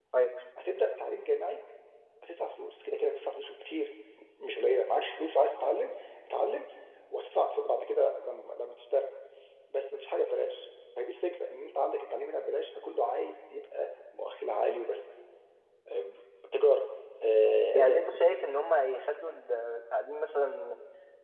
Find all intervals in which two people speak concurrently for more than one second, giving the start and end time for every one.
none

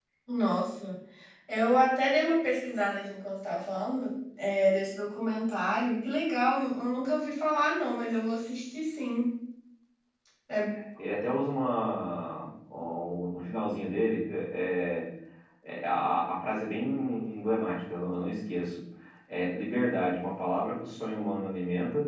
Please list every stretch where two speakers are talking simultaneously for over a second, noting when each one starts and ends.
none

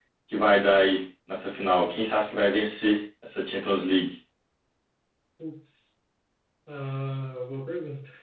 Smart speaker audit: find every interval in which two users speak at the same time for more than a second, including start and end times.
none

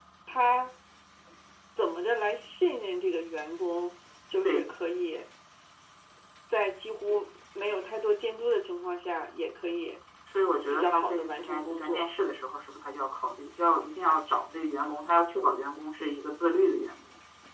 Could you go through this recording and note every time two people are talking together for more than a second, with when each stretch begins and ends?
10.7-12.1

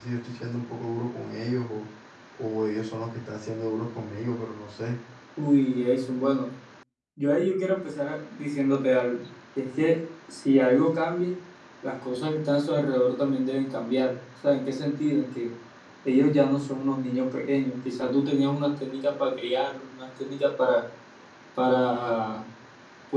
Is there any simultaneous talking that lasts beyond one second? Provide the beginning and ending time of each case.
none

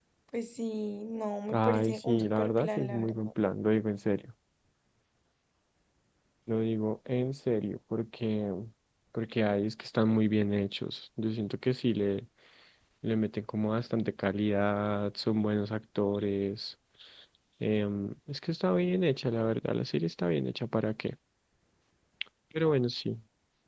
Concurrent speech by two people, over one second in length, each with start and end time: 1.5-3.3

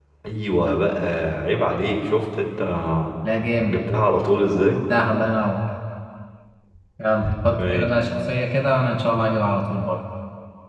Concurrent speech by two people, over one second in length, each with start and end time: none

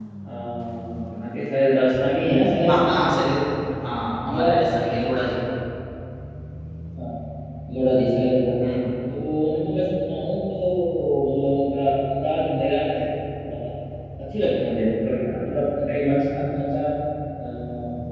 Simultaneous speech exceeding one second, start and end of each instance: none

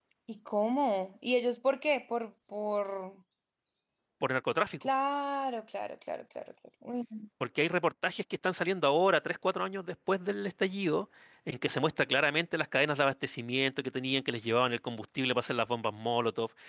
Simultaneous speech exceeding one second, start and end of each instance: none

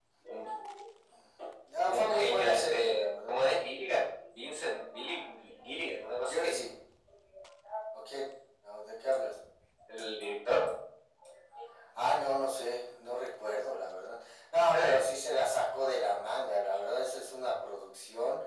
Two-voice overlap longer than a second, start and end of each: 1.9-3.4

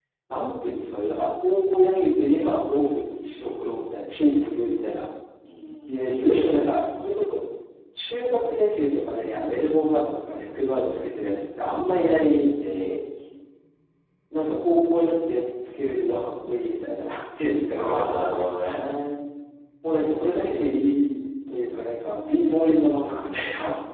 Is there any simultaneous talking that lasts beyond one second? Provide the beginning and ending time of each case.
none

